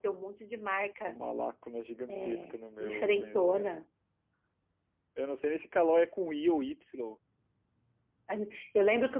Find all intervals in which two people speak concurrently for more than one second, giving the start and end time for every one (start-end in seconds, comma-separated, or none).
2.1-3.7